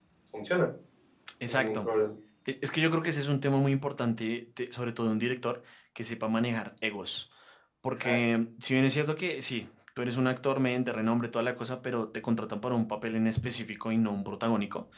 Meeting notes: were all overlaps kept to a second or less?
Yes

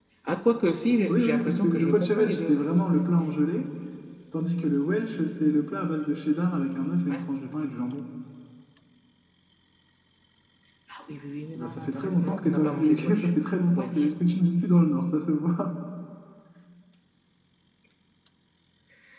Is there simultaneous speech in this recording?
Yes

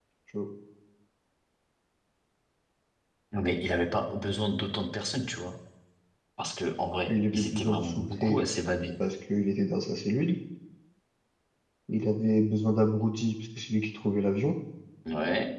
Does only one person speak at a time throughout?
No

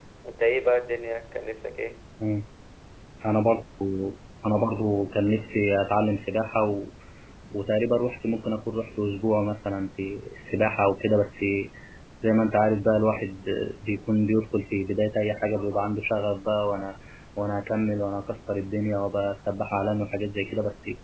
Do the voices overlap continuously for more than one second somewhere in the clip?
No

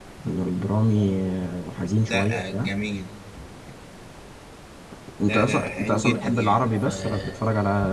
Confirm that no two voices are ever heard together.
No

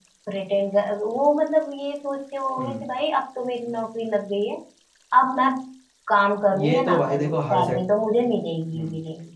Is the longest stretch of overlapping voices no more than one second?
No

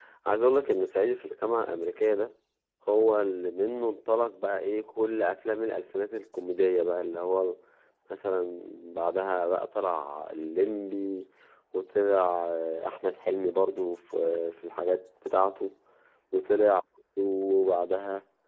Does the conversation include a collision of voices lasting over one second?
No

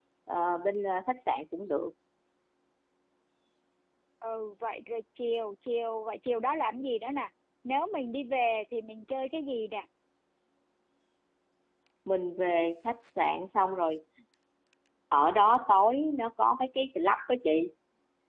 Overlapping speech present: No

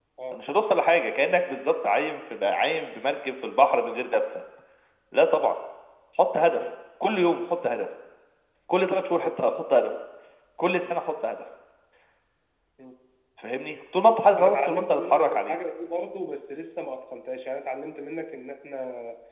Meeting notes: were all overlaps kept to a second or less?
No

